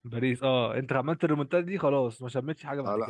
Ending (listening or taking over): taking over